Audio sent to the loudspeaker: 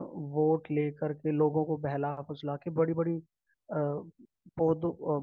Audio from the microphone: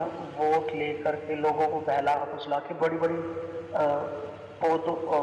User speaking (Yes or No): No